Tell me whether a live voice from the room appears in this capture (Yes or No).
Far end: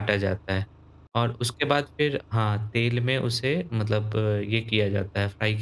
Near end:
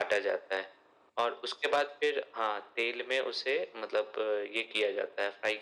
No